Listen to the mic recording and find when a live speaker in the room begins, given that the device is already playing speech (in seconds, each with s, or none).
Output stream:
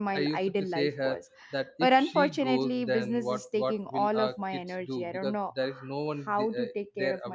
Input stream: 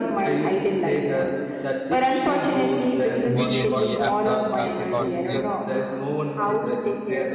3.2 s